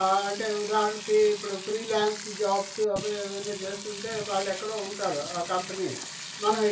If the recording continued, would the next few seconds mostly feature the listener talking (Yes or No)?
No